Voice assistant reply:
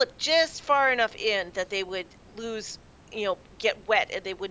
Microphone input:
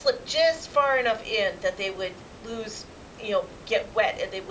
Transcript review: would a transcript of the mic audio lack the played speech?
No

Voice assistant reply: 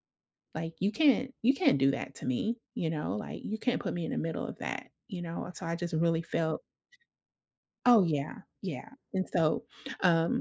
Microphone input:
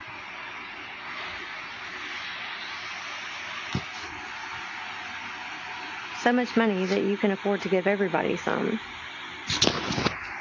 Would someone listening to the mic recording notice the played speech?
No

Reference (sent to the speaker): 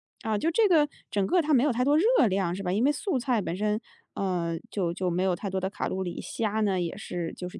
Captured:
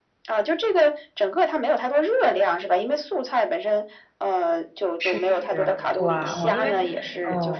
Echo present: Yes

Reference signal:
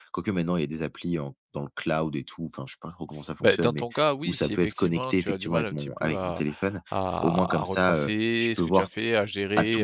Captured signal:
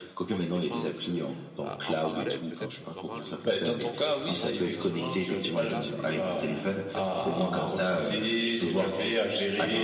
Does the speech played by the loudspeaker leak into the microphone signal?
Yes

